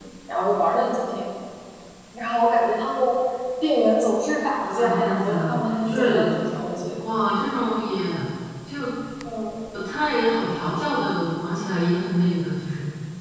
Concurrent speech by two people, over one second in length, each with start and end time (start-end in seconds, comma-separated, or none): 4.6-6.2